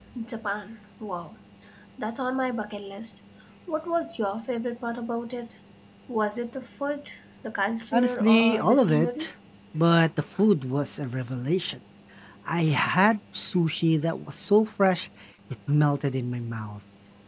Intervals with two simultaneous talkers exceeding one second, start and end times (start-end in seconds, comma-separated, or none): 7.9-9.3